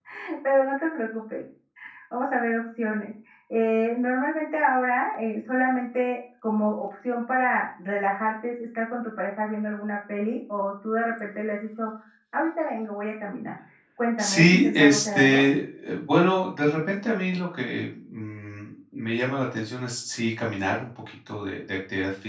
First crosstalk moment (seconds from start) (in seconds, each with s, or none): 14.2 s